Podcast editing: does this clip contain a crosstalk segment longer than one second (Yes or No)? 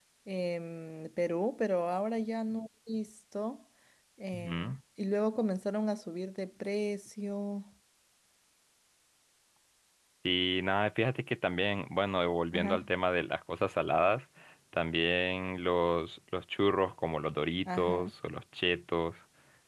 No